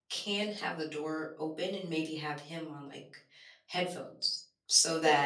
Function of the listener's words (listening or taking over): taking over